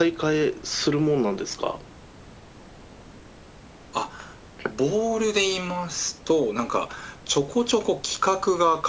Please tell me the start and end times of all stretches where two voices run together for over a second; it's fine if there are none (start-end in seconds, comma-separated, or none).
none